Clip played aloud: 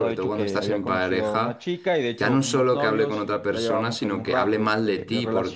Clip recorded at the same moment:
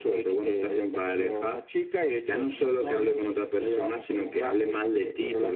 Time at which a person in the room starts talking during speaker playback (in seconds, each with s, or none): none